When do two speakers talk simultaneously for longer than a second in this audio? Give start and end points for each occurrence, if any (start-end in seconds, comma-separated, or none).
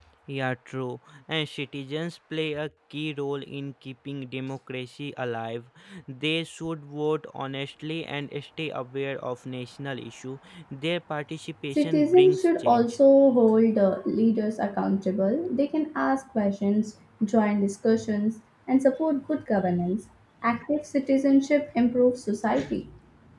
11.8-12.9